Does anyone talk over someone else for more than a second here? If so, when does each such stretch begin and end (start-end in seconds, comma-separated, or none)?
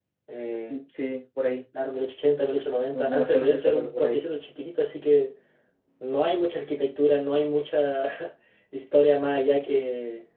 2.9-4.2